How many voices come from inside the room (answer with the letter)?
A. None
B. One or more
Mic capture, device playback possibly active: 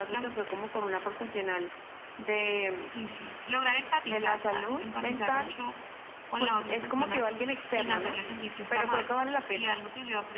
B